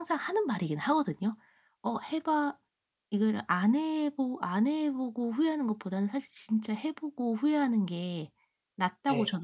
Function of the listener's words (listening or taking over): listening